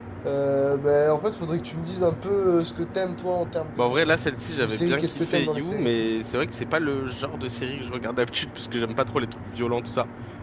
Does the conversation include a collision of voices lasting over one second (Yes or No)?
Yes